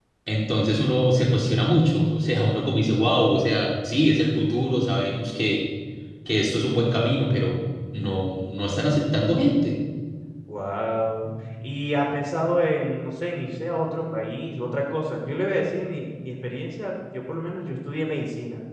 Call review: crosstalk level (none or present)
none